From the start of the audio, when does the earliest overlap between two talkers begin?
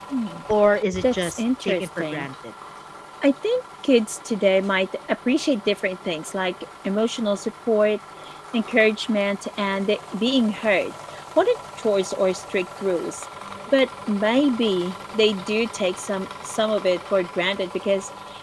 1.0 s

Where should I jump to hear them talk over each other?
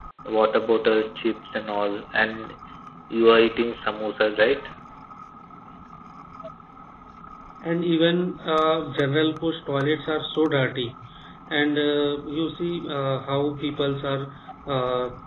none

